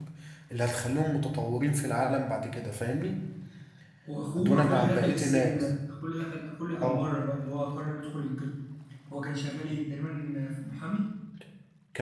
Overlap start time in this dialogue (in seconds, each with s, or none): 4.4 s